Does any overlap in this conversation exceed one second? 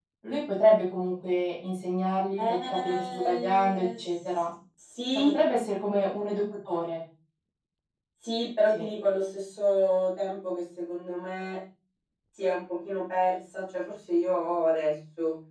Yes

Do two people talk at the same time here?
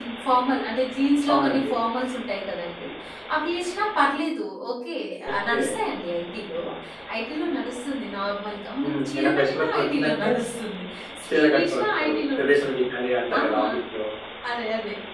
Yes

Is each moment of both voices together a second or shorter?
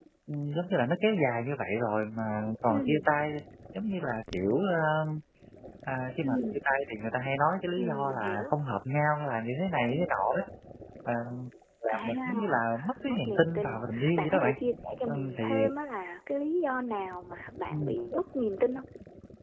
No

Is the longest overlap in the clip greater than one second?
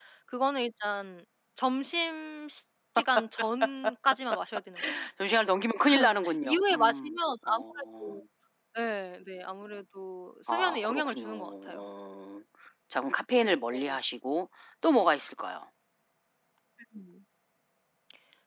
Yes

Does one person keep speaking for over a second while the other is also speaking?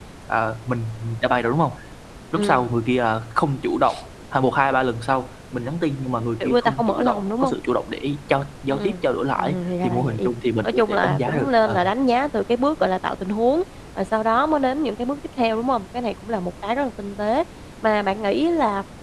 Yes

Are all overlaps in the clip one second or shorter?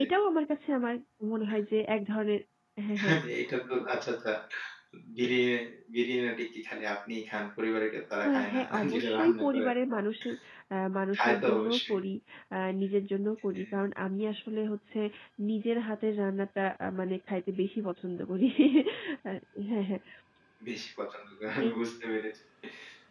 No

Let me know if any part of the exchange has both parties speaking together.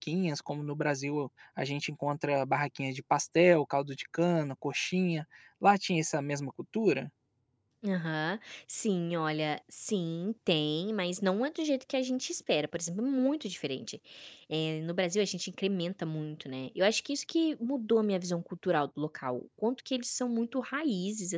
No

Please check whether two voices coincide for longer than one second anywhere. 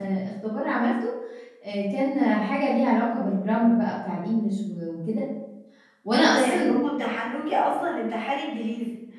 No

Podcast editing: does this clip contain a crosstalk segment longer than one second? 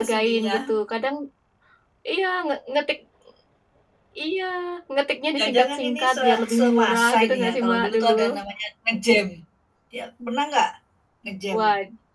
Yes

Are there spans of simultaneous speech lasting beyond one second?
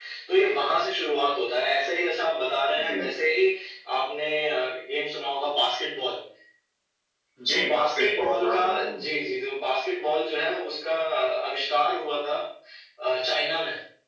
Yes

